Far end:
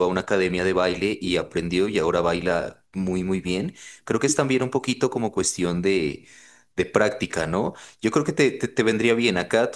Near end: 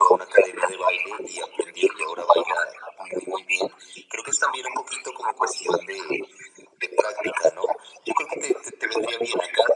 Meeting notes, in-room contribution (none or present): none